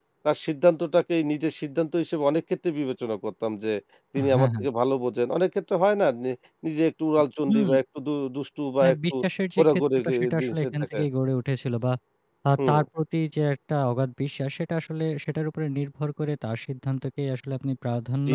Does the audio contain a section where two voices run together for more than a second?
Yes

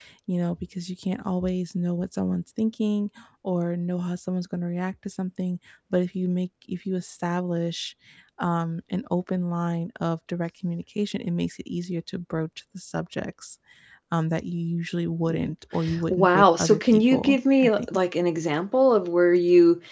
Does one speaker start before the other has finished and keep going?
Yes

